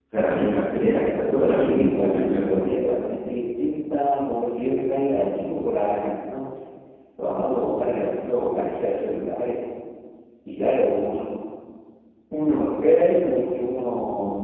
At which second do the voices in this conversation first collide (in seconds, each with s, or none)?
1.0 s